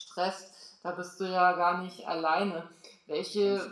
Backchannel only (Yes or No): Yes